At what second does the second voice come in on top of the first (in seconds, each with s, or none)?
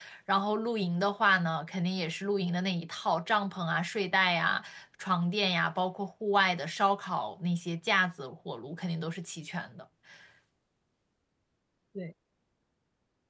none